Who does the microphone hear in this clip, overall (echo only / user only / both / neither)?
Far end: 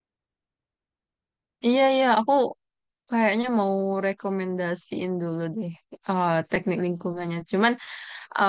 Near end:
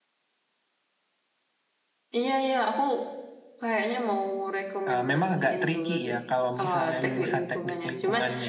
both